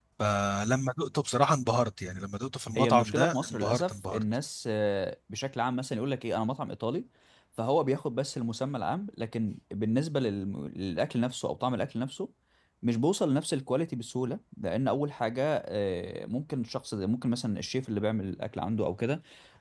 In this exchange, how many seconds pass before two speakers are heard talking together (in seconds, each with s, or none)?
2.8 s